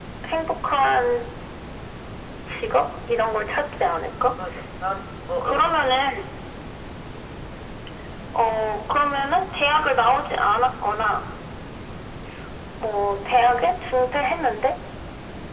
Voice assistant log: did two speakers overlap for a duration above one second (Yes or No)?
No